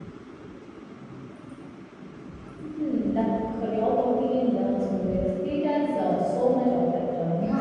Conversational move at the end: taking over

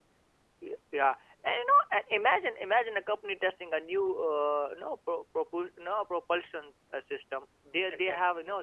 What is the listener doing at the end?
listening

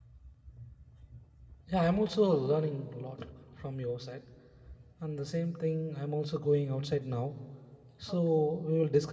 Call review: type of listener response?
listening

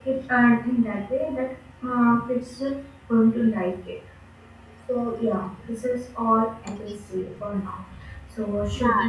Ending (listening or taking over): taking over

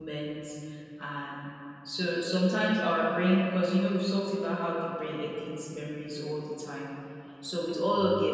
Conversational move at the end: listening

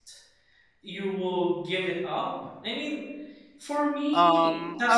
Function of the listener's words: taking over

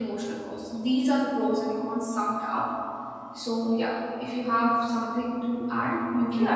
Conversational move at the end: taking over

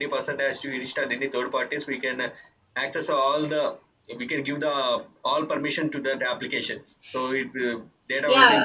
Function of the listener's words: taking over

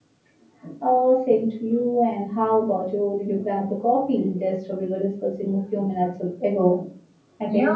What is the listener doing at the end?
taking over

